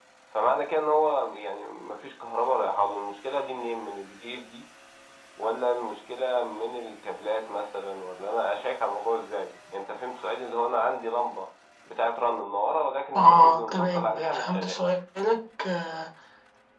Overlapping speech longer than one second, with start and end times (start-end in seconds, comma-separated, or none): 13.2-14.8